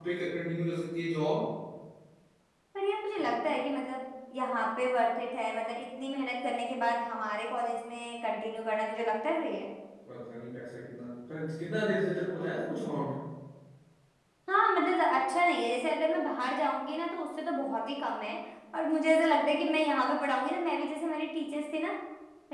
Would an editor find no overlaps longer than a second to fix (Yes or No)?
Yes